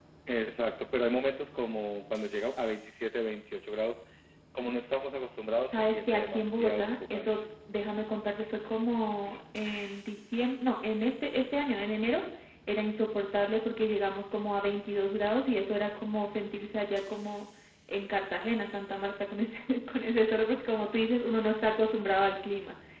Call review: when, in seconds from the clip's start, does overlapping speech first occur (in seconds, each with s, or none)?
5.7 s